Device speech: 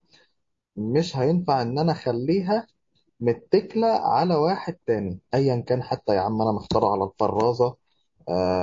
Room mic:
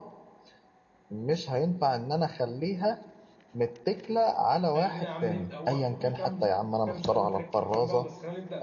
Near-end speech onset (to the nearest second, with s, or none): 5 s